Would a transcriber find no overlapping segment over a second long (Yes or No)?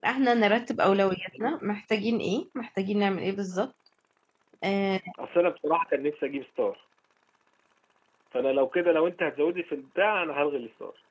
Yes